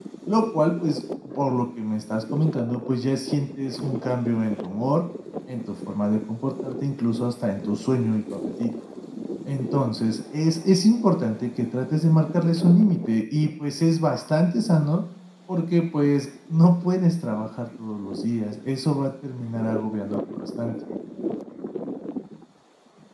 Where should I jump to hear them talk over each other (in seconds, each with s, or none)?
none